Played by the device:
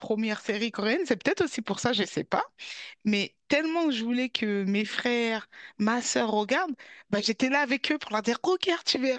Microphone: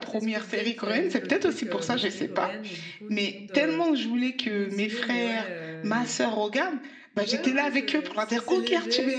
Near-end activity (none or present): present